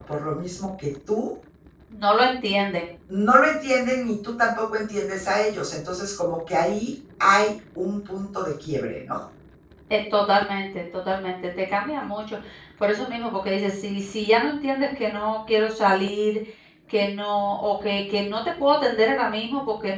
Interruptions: none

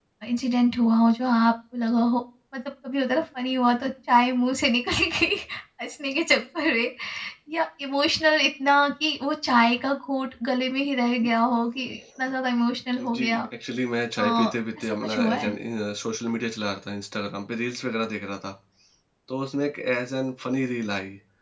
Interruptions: present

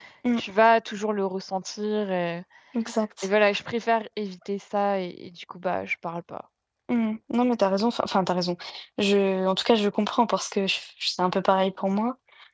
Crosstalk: none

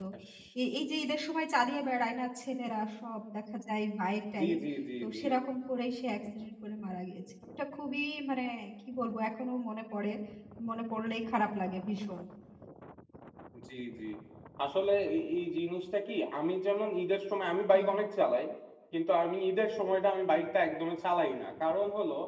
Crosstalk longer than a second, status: none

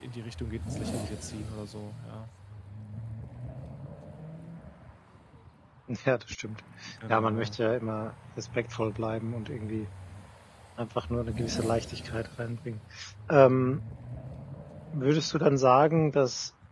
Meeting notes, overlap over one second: none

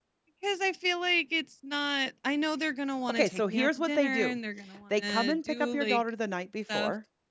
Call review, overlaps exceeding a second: present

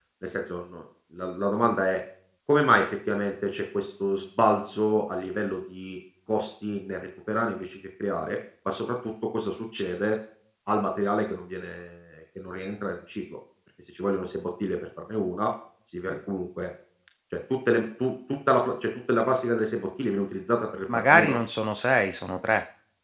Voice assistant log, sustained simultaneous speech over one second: none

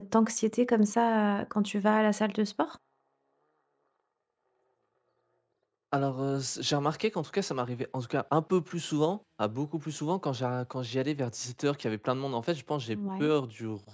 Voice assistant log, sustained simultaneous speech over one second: none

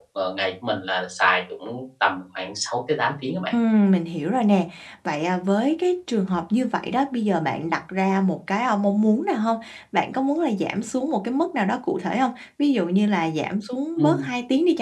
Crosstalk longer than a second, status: none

